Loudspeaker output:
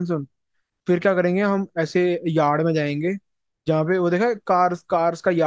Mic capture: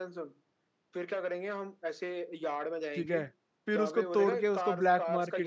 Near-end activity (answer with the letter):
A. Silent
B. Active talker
B